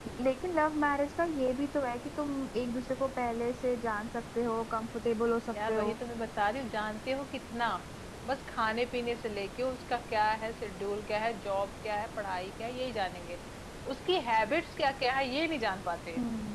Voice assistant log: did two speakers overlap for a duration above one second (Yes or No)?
No